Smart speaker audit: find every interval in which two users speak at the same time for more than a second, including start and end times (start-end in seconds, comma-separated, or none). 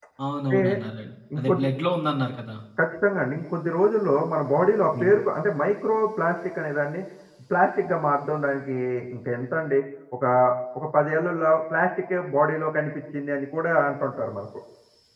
none